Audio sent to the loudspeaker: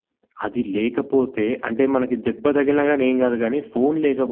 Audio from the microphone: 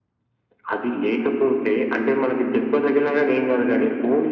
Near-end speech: none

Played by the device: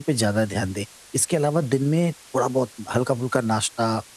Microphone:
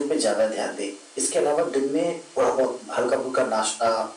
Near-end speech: none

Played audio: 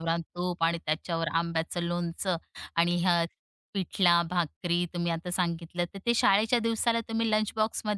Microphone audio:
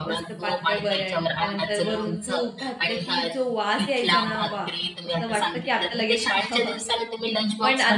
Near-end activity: present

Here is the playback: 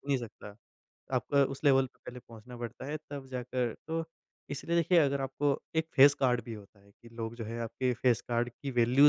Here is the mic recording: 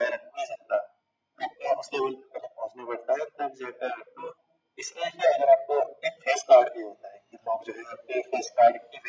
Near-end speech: none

